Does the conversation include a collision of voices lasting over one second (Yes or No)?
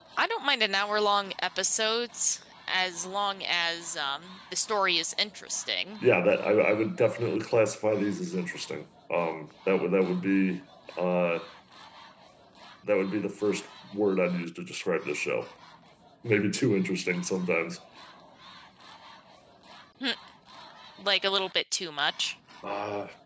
No